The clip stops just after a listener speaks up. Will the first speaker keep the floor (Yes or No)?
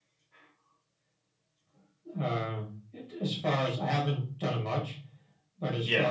Yes